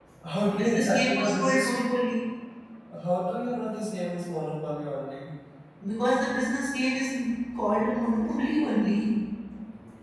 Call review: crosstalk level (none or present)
present